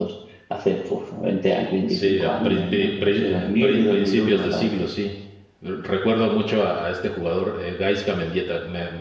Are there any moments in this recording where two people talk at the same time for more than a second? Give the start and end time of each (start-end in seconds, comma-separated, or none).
1.9-4.7